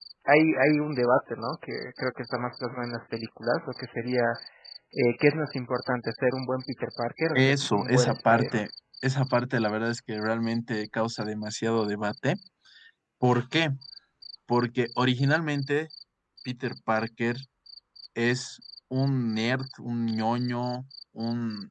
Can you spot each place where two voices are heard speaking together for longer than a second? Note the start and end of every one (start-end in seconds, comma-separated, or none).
7.4-8.6